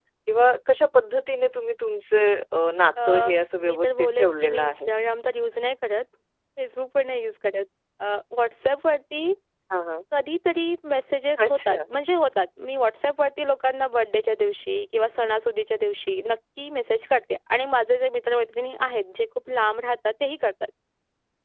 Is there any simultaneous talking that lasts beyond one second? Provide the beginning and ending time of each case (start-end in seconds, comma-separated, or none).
3.6-4.9